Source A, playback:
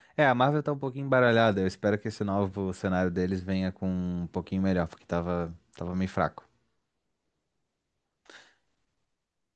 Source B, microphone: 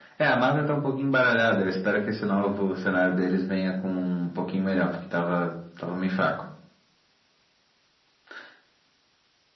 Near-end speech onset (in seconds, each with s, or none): none